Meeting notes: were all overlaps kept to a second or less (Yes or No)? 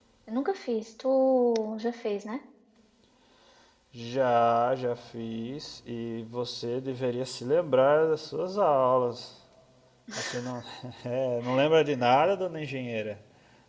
Yes